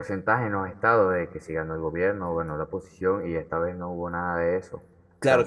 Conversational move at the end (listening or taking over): taking over